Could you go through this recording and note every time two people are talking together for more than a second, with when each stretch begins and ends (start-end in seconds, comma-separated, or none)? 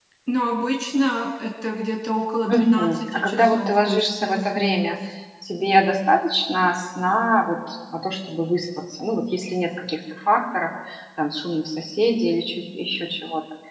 2.5-5.0